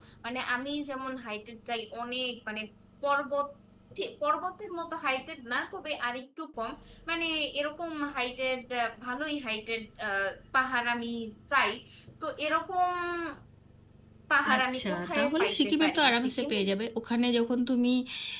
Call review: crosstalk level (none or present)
present